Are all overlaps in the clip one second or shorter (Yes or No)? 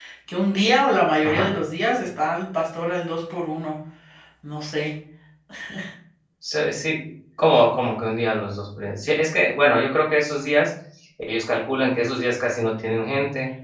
Yes